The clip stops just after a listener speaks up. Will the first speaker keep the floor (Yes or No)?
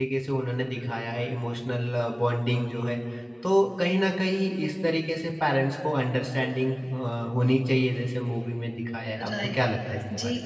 No